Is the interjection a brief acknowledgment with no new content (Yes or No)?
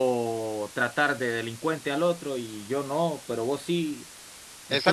No